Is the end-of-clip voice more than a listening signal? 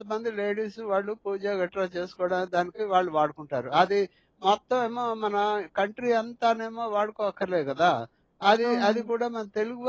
No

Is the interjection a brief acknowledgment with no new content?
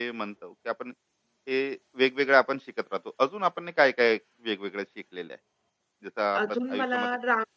No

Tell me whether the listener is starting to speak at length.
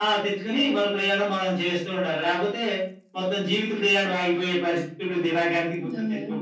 Yes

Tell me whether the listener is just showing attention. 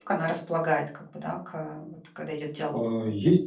No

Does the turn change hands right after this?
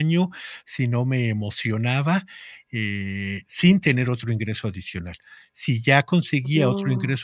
No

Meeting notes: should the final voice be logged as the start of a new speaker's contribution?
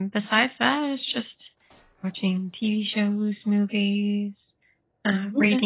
No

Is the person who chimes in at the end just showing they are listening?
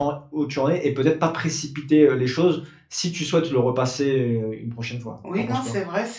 No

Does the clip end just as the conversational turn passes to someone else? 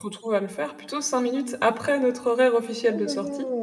Yes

